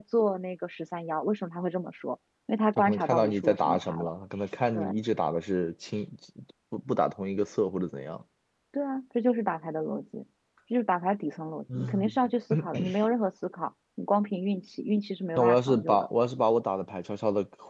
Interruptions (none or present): present